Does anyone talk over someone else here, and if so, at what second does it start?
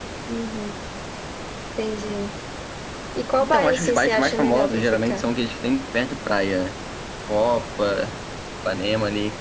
3.4 s

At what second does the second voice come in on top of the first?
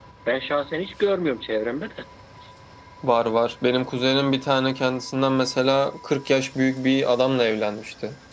none

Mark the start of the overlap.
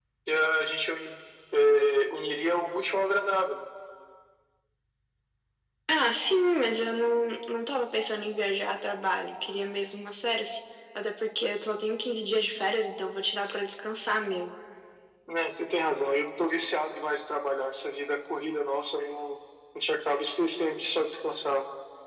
none

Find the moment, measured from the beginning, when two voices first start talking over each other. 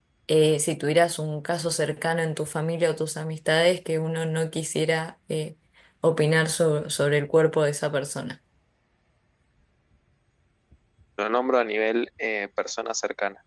none

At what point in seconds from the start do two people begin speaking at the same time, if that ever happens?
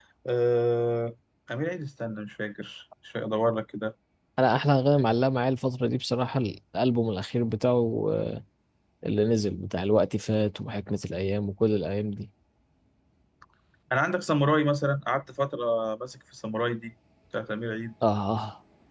none

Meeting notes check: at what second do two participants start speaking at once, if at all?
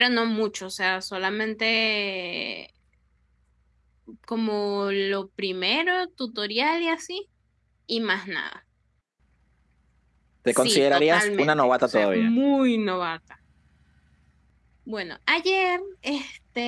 10.5 s

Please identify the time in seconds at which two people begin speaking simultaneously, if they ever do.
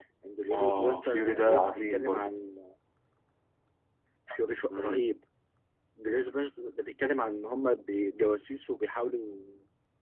0.5 s

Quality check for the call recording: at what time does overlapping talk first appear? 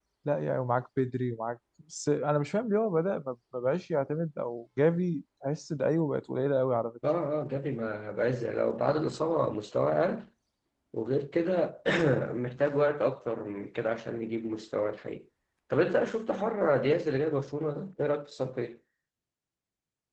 none

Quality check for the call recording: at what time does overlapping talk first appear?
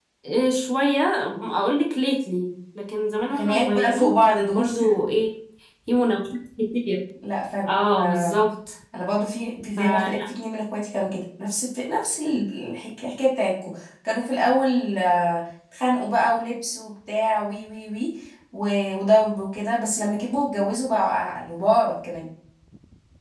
3.3 s

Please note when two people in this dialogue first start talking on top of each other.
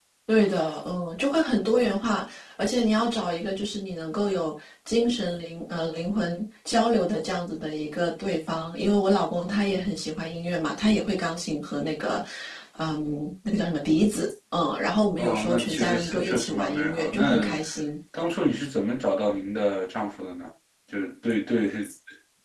15.2 s

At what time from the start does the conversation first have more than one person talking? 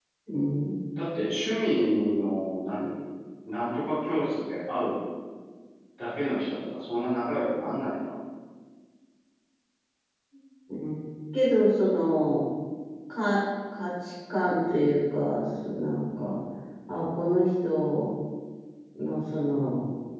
none

